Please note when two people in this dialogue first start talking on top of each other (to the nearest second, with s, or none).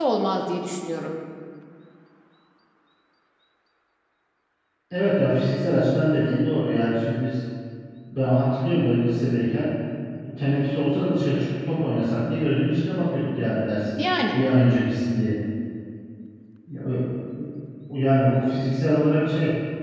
none